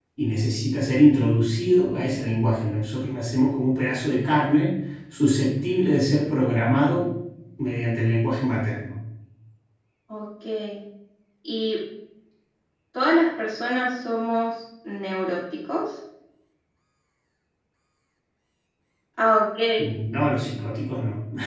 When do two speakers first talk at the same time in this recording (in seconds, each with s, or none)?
none